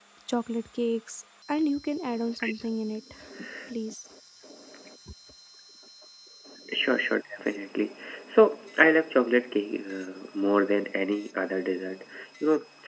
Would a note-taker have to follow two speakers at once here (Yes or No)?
No